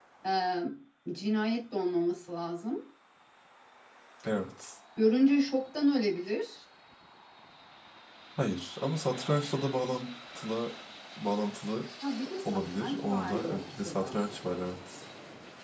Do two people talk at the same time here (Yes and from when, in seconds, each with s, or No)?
Yes, from 12.5 s